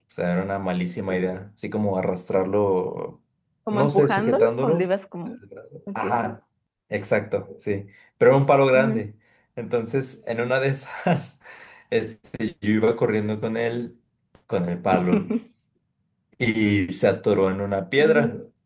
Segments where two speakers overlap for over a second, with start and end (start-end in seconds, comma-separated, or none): 3.7-4.9